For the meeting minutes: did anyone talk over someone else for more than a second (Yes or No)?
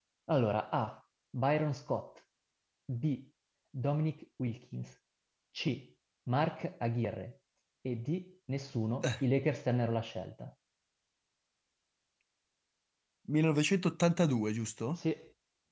No